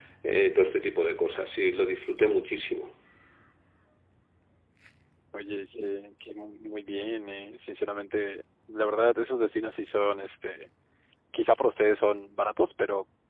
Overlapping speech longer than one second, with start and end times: none

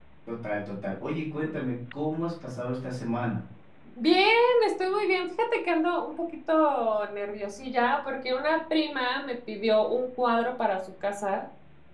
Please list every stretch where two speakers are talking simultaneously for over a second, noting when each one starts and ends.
none

